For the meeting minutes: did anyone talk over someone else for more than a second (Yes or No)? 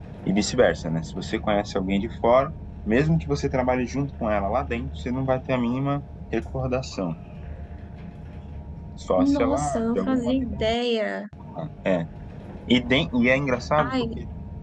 Yes